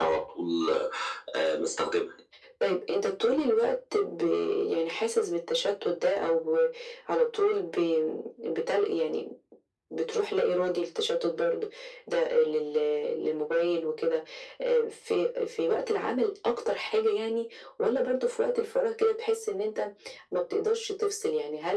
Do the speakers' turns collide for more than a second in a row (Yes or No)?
No